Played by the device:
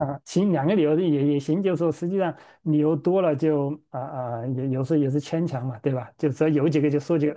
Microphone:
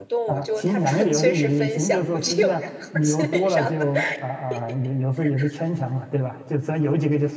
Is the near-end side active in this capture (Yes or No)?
Yes